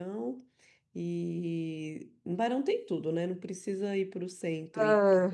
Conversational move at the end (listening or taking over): listening